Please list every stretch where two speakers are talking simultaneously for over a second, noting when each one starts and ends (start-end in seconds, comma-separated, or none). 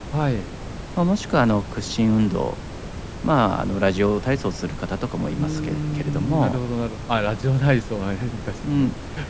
5.4-6.6